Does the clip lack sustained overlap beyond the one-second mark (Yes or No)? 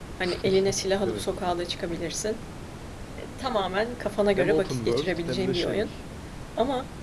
No